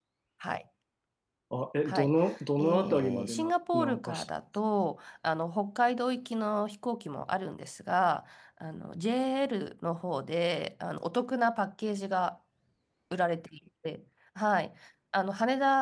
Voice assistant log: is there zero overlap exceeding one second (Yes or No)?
No